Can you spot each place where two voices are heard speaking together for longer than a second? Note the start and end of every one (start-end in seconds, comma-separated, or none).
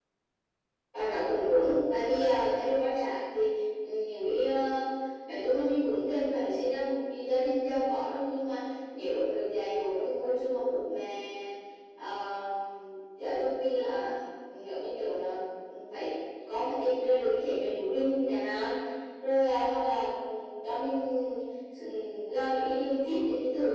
none